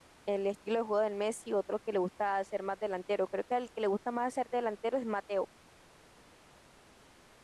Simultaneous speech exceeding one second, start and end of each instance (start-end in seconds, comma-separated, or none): none